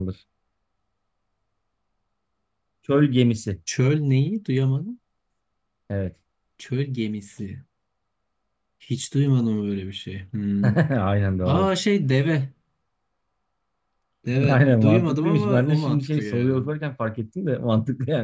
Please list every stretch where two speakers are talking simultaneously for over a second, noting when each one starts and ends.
14.5-16.6

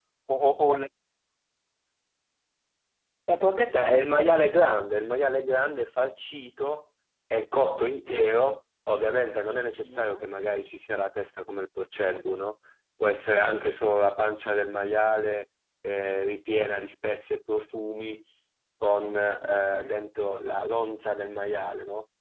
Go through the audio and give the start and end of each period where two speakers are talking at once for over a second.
none

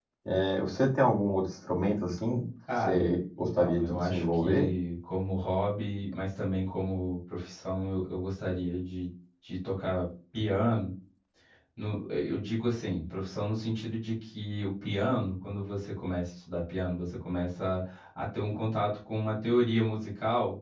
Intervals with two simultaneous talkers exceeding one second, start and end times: 2.8-4.7

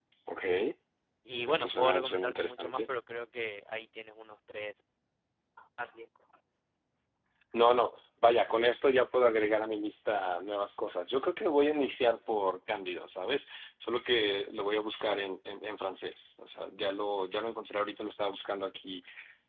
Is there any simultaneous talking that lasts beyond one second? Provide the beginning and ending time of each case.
1.5-2.8

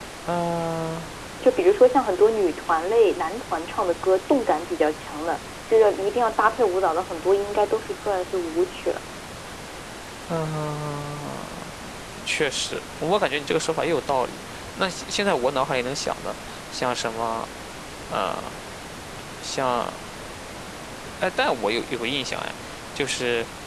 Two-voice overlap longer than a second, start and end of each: none

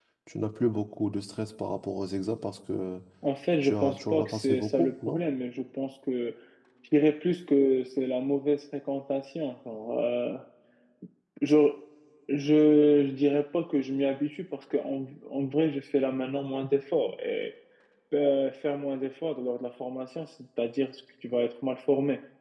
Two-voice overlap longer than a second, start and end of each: 3.6-5.2

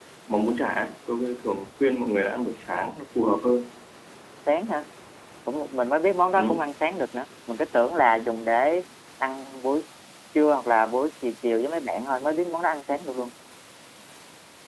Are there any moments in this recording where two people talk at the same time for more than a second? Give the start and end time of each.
none

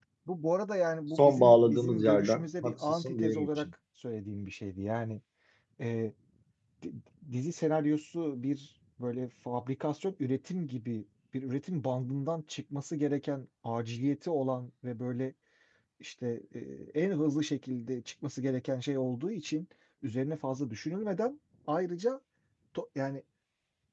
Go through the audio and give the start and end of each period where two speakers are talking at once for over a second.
1.2-3.7

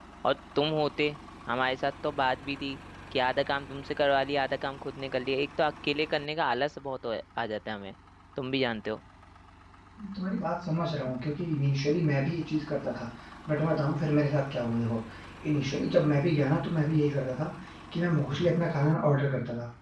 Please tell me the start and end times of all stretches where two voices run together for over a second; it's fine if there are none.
none

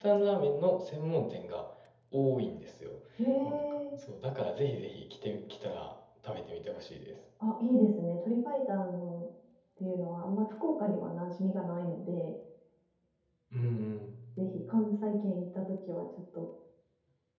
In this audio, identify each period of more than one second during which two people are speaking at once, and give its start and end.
none

